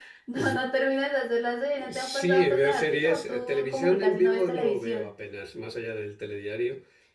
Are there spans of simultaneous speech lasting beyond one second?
Yes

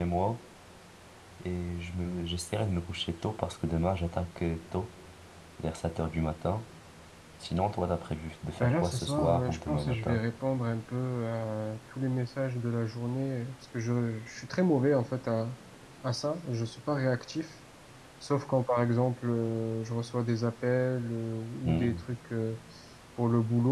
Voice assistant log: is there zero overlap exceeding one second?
No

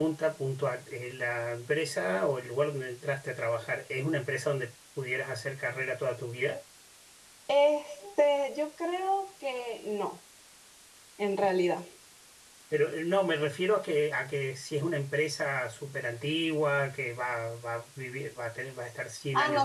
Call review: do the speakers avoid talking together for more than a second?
Yes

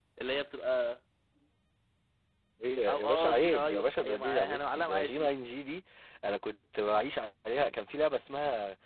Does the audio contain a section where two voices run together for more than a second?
Yes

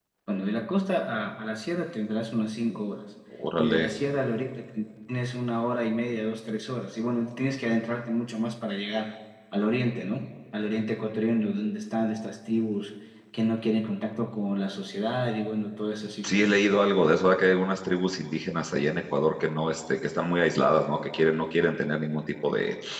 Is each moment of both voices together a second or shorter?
Yes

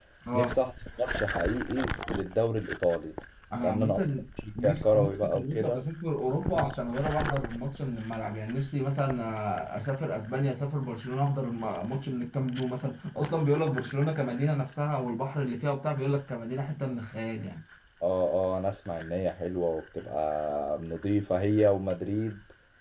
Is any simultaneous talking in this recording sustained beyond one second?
Yes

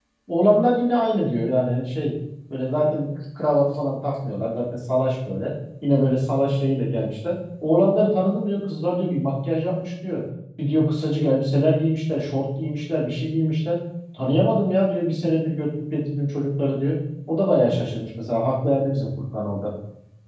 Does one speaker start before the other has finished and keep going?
No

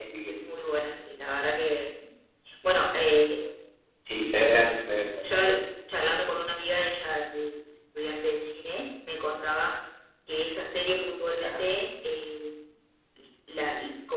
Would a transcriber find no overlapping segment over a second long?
Yes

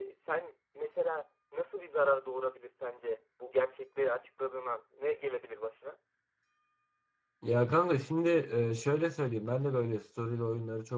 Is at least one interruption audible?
No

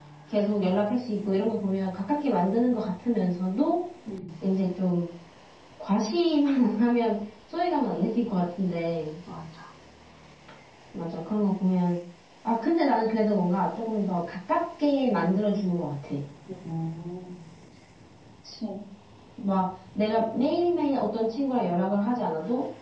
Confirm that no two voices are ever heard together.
Yes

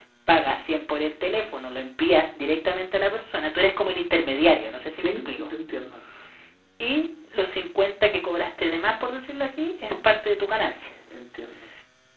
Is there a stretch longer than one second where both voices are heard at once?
No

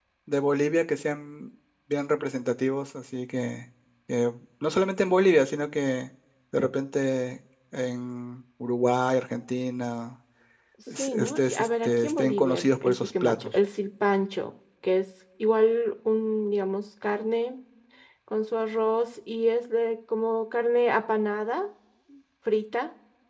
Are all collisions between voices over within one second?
No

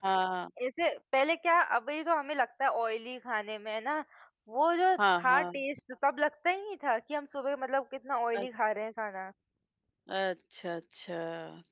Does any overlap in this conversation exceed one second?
No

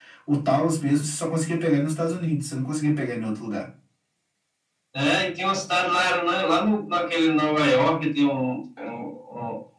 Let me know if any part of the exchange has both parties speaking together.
No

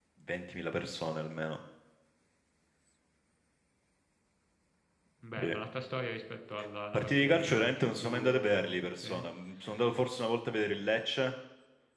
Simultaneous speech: Yes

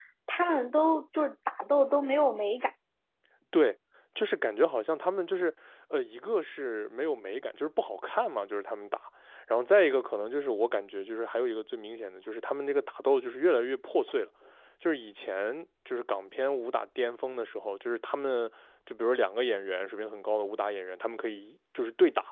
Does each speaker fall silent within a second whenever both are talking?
Yes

